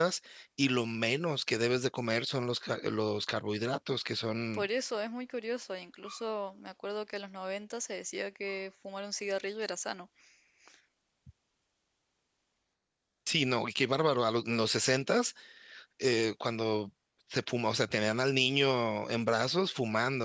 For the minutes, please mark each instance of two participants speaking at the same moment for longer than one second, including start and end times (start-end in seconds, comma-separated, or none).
none